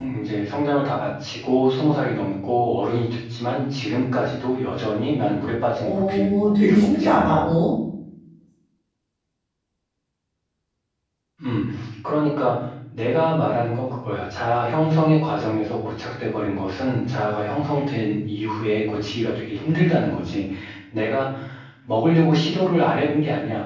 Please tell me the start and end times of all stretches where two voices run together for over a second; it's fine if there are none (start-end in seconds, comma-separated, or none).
5.8-7.4